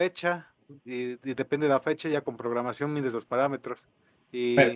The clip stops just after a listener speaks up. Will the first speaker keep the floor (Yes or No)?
Yes